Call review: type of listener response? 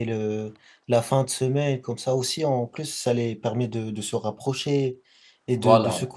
listening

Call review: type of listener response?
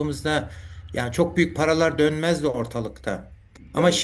listening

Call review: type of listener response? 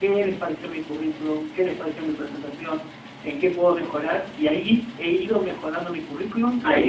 taking over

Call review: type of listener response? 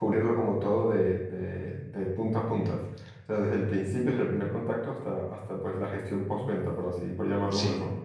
taking over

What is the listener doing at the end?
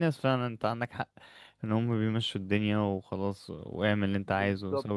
taking over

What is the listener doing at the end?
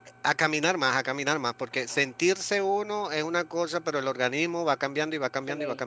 taking over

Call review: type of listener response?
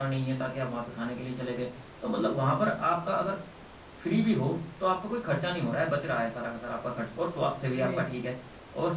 listening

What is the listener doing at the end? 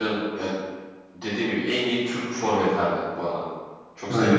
taking over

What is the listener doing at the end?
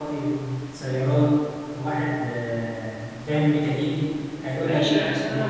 taking over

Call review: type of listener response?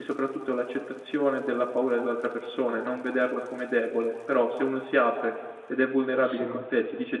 listening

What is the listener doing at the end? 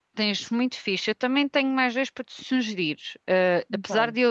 listening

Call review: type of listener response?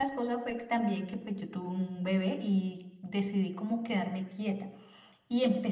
listening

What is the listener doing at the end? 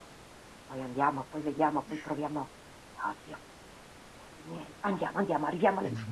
taking over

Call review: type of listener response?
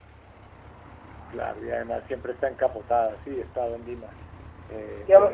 taking over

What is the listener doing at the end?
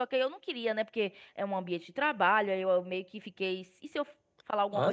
listening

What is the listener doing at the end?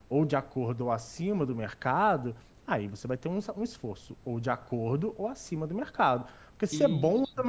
listening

